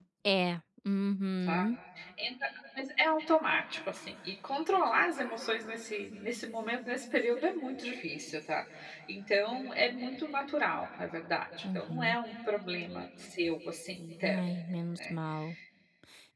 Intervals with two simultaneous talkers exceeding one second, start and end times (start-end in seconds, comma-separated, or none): none